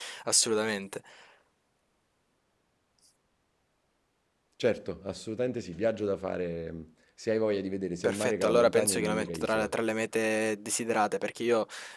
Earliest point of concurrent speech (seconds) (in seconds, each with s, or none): 8.0 s